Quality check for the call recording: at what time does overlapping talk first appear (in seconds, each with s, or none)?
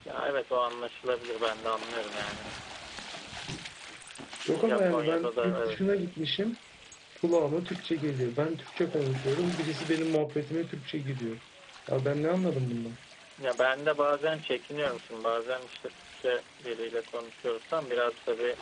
4.5 s